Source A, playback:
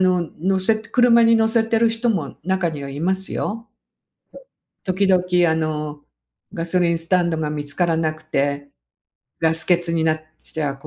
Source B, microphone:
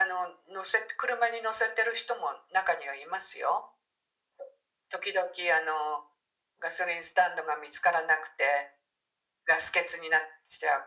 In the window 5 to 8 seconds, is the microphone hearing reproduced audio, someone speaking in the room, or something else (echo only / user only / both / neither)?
echo only